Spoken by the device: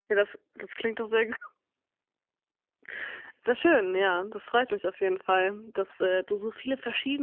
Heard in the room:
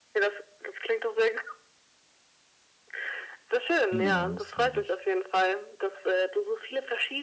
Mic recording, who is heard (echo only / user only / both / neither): both